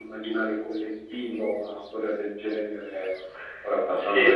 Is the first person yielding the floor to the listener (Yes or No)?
Yes